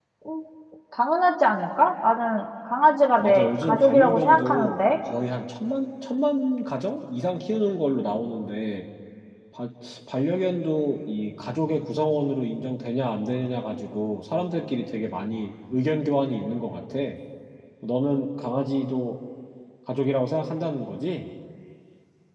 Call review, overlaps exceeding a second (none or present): present